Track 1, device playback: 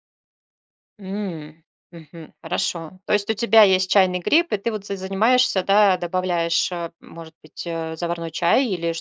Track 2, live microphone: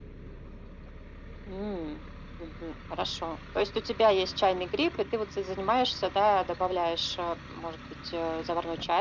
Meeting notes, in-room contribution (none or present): none